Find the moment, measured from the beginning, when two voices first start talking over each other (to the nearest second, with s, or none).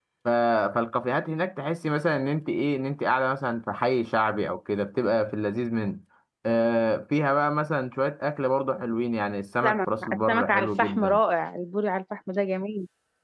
10 s